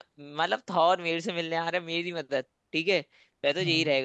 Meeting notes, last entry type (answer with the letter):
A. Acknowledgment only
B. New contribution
A